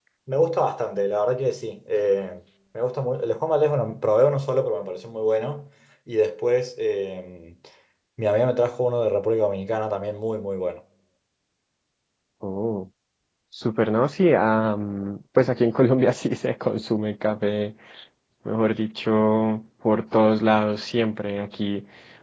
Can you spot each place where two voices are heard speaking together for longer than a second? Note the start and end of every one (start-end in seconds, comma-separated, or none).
none